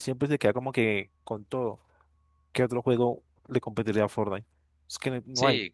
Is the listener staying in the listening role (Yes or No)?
No